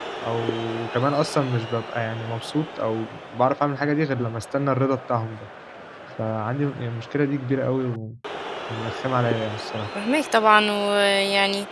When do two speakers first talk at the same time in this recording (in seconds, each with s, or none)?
none